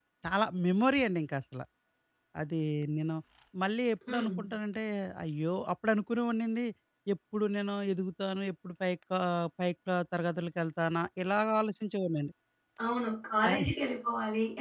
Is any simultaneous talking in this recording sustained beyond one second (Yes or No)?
No